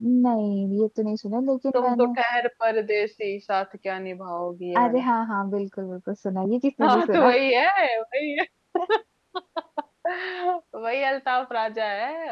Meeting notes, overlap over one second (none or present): none